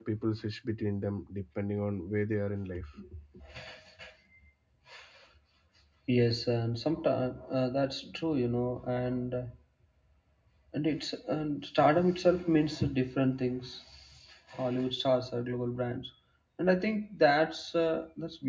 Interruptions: none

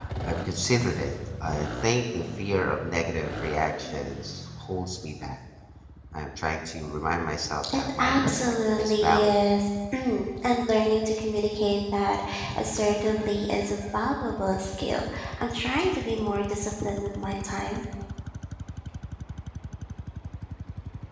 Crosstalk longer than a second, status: present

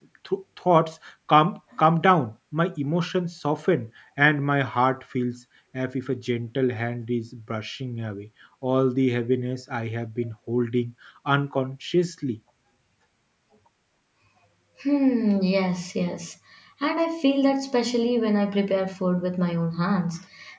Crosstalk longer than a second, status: none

